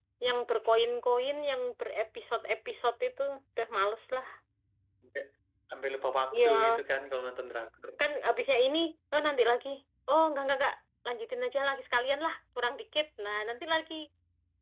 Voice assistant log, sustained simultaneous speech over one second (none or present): none